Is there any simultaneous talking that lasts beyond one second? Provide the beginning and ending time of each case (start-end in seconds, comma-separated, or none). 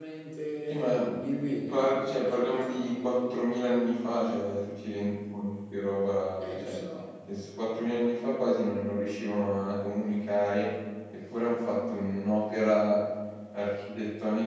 1.7-3.3